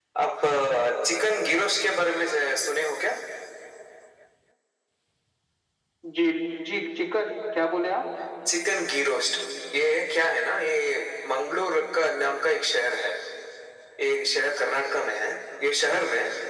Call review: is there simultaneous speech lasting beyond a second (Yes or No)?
No